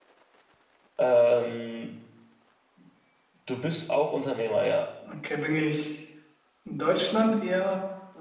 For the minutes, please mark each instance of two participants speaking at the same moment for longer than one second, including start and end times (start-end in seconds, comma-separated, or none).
none